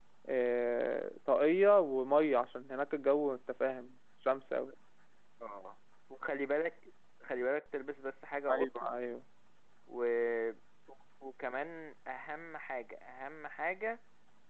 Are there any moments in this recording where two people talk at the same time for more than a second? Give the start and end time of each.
none

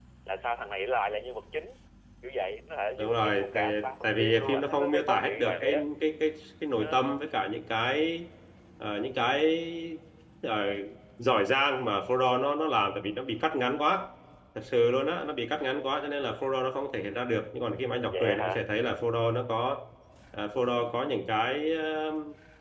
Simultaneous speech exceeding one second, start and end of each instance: 3.0-5.8

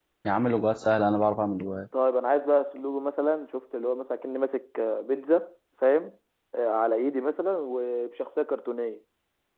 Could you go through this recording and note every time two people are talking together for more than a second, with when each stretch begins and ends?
none

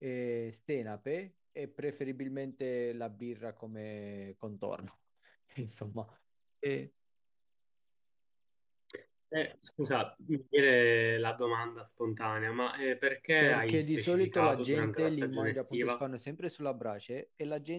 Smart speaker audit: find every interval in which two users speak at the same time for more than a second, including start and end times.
13.4-16.0

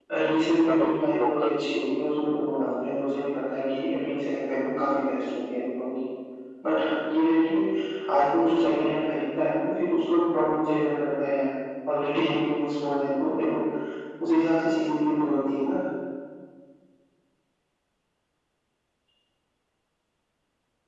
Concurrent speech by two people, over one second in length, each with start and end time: 0.6-2.2

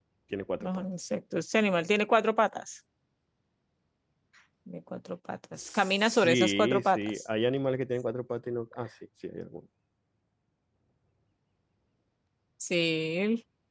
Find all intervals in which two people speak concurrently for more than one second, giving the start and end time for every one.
5.6-7.2

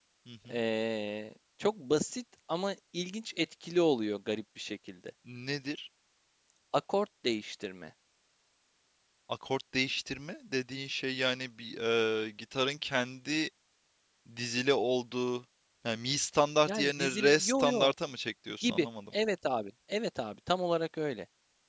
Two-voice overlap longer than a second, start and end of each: 16.7-17.9

